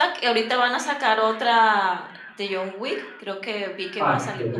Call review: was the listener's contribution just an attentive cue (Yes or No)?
No